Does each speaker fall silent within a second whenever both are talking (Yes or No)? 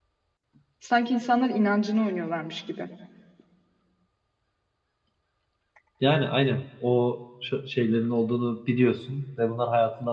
Yes